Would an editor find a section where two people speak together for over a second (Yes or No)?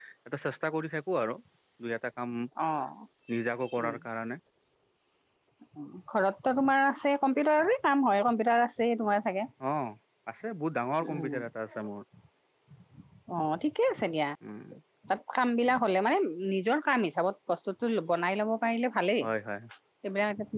No